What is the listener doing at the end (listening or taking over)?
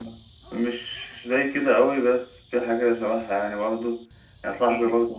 listening